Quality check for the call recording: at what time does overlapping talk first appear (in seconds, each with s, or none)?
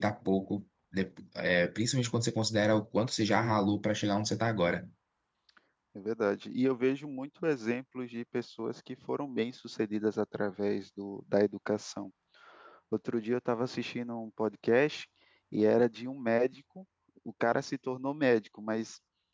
none